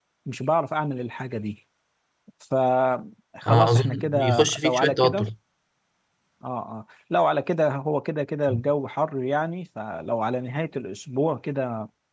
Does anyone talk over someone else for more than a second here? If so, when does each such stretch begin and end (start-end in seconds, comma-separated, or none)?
3.5-5.3